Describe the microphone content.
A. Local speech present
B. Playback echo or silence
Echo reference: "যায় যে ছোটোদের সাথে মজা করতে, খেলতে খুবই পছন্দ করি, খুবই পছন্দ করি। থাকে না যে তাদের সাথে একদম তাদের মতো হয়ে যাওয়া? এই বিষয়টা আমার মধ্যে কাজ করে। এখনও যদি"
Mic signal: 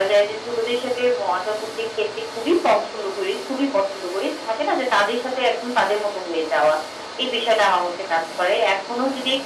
B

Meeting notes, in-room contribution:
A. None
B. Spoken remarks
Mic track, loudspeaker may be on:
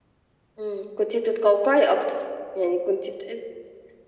A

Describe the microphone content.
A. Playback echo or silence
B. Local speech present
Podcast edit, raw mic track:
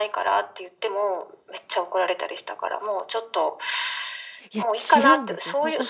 B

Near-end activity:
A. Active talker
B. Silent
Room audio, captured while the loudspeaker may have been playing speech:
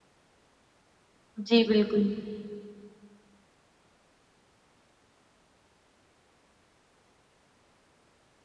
A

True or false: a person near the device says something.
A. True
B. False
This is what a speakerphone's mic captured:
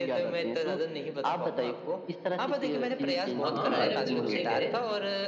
A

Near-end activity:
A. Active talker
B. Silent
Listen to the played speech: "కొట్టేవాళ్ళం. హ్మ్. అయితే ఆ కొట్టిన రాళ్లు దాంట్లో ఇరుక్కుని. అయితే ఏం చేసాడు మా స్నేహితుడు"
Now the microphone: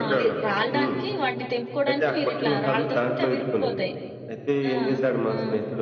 A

